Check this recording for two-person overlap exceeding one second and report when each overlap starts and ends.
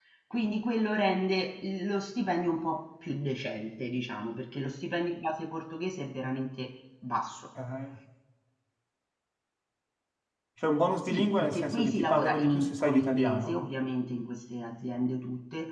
11.1-13.6

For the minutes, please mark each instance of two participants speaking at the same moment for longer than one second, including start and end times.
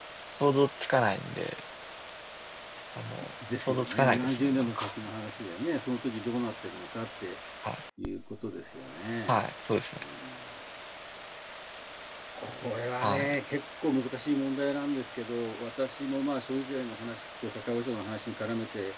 3.6-4.9

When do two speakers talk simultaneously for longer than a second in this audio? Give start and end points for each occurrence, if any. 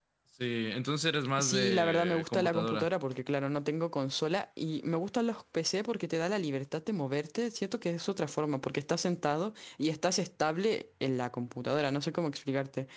1.4-2.9

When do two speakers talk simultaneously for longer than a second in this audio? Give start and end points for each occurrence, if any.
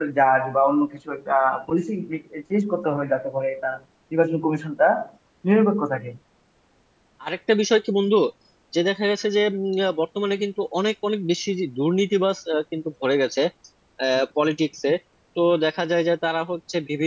none

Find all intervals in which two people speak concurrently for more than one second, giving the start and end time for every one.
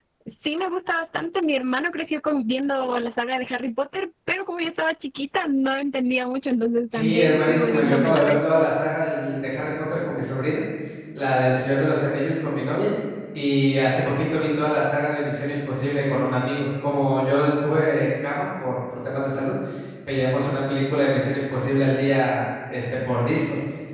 6.9-8.3

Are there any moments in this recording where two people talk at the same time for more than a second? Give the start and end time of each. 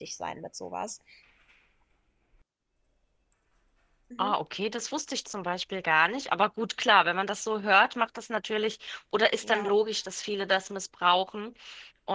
none

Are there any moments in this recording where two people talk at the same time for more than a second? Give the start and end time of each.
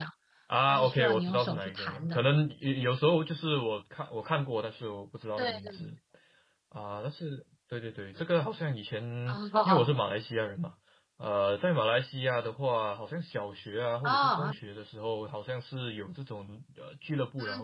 0.7-2.2

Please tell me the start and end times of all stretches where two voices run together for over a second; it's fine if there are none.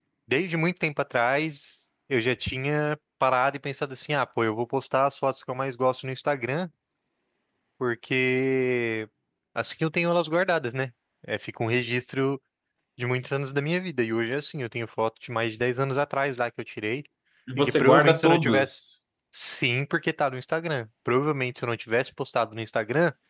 17.6-18.8

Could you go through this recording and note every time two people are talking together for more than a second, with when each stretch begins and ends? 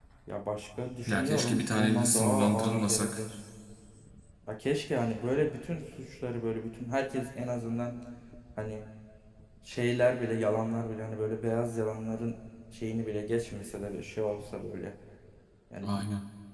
1.1-3.2

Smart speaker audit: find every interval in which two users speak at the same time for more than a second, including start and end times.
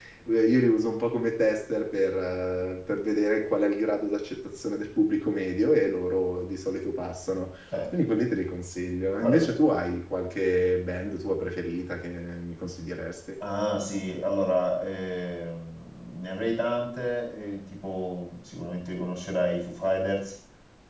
none

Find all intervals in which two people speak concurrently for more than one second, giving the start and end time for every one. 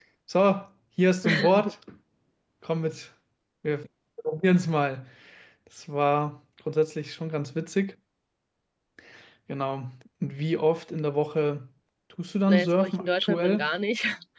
12.5-13.7

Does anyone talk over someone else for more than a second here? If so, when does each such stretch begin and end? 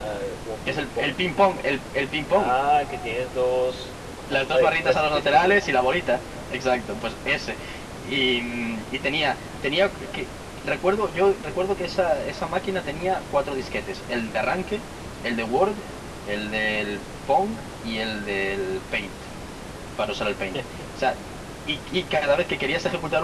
4.3-5.6

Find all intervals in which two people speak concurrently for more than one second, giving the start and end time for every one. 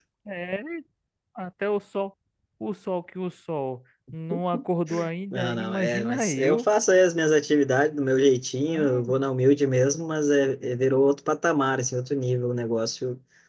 5.3-6.7

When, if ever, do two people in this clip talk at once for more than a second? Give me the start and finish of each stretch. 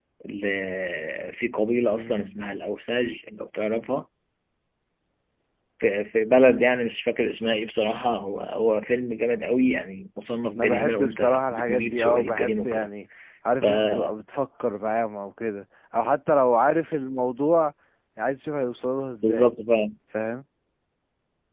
10.6-12.9

